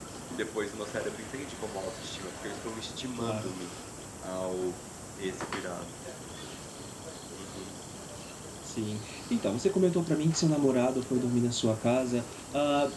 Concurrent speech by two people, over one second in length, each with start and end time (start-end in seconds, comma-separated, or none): none